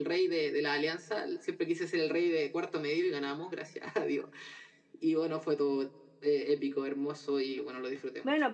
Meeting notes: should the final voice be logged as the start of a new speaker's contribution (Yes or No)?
Yes